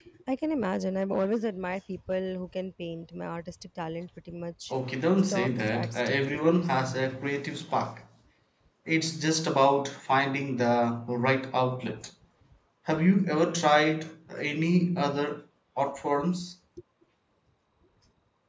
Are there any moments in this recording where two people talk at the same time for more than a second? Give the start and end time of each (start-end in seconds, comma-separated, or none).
5.3-6.7